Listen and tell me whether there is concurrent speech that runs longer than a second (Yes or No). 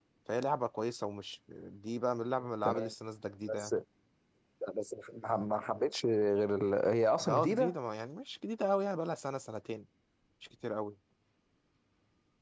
No